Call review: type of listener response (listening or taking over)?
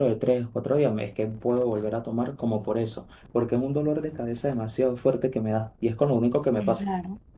taking over